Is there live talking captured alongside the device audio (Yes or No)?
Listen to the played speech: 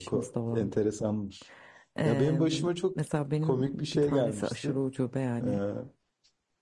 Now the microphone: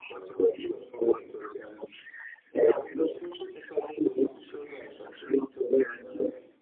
No